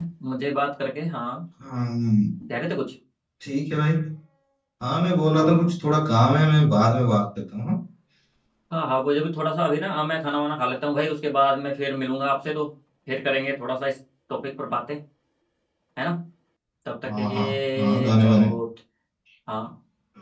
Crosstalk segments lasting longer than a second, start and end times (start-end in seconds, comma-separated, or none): 17.1-18.5